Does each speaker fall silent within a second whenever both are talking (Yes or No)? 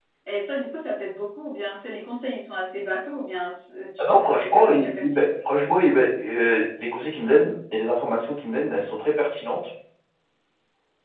No